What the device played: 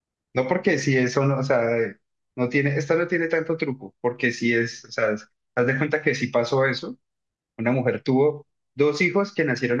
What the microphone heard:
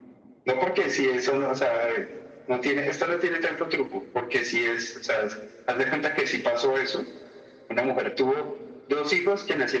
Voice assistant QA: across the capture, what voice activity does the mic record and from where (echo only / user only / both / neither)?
echo only